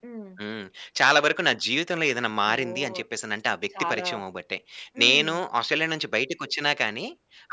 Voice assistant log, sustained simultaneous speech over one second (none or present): none